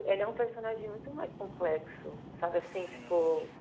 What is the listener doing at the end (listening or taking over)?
listening